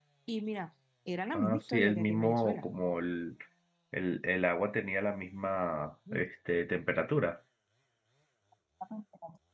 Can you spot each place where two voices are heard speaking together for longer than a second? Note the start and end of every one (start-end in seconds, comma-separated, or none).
1.3-2.6